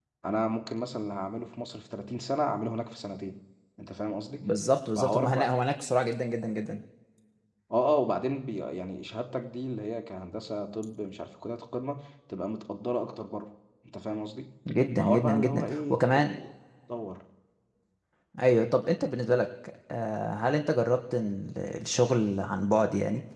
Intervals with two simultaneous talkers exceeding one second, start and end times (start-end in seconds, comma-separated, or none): 15.0-16.2